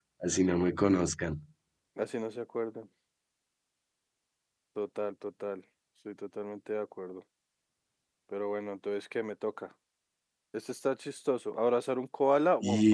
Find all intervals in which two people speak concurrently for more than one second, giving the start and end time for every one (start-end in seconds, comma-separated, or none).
none